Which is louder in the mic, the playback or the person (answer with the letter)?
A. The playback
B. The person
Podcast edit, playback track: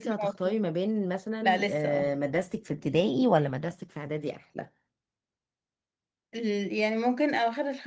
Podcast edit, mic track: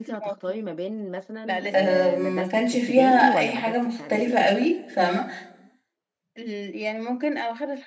B